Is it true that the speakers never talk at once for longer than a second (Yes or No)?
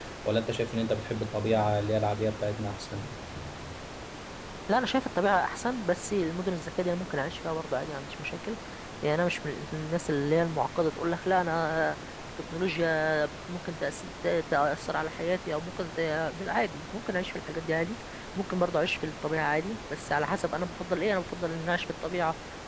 Yes